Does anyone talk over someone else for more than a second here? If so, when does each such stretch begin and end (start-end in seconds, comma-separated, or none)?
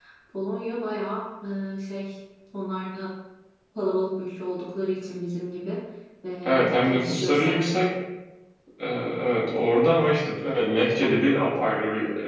6.4-7.8